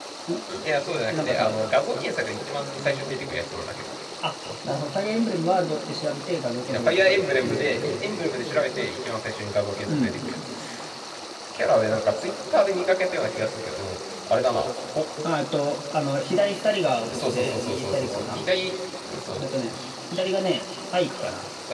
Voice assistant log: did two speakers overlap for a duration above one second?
Yes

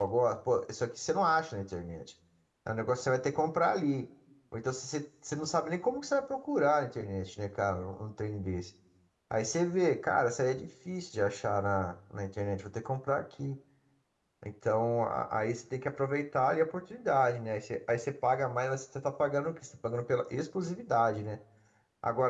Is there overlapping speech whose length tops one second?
No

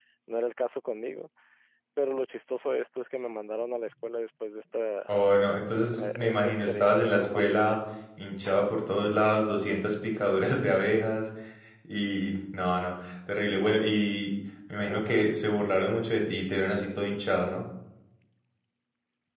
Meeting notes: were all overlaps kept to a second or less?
No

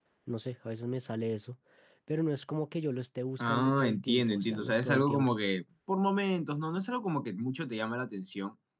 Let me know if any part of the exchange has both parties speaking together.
Yes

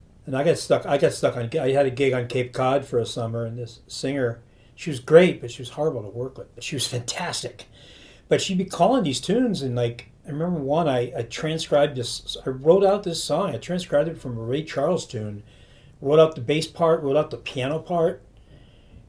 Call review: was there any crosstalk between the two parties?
No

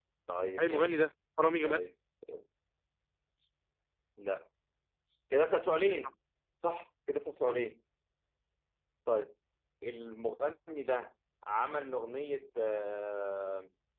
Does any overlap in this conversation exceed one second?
No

